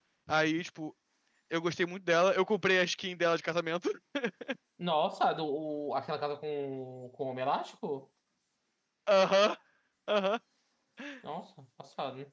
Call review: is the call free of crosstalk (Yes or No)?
Yes